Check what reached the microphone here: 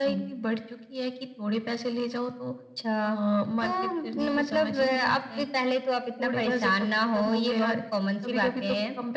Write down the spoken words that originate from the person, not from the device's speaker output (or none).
none